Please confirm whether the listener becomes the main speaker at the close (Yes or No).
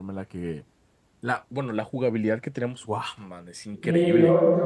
Yes